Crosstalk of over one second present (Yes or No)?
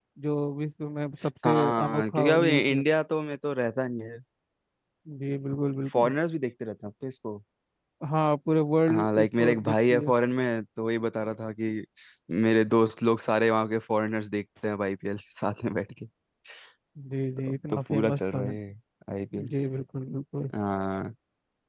Yes